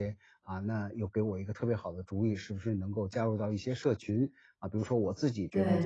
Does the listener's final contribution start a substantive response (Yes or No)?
No